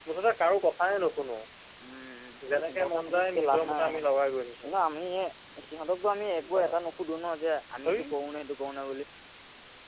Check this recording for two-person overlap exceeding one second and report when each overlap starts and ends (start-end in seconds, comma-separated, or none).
2.5-4.1